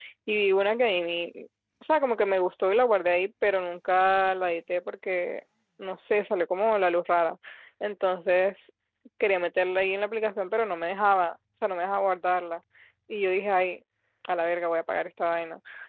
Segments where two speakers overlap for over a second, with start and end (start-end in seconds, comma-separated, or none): none